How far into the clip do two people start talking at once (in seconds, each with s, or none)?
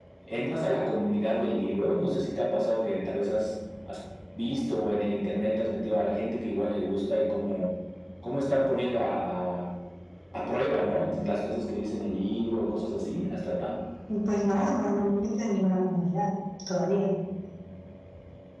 none